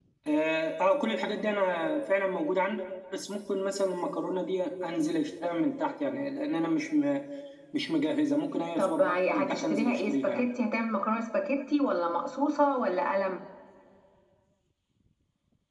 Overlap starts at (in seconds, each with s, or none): 8.8 s